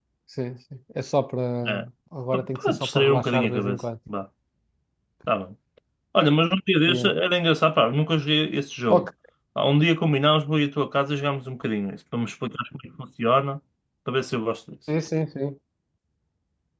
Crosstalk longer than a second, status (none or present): present